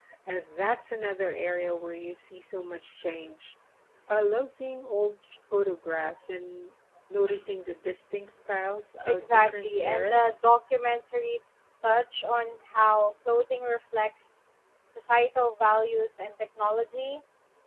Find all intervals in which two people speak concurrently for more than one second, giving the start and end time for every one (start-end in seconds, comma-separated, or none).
9.1-10.4